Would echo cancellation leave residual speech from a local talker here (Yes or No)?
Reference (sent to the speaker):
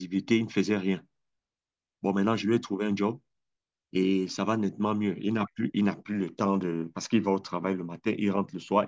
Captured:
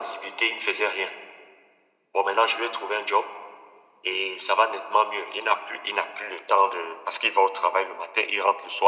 No